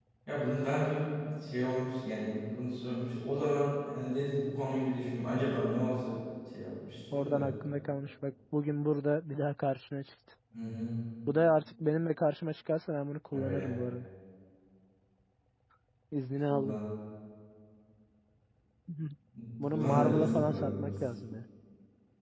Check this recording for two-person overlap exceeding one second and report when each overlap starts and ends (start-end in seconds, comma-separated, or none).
19.7-20.9